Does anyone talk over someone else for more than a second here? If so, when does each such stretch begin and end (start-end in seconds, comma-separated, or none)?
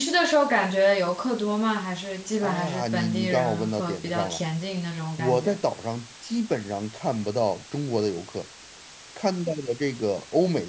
2.4-4.4